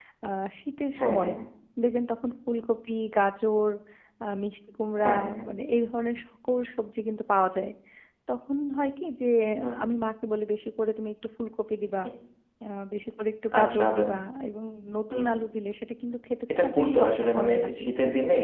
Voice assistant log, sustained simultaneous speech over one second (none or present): present